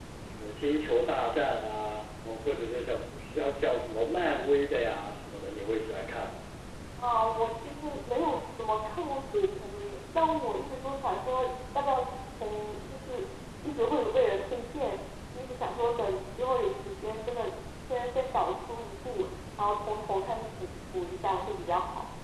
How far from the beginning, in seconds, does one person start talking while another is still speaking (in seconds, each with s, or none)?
none